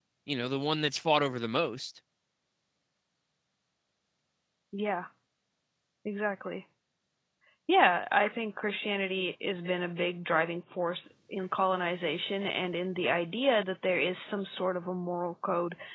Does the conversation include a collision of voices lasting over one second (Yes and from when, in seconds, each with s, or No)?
No